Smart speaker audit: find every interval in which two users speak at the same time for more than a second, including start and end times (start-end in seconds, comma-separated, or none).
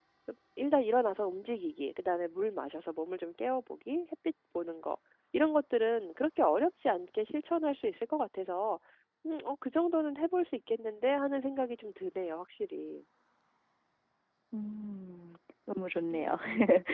none